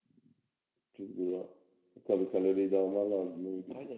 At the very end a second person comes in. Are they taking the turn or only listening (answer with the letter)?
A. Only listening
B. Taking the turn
B